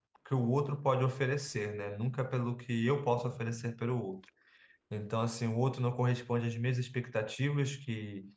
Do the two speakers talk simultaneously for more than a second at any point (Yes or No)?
No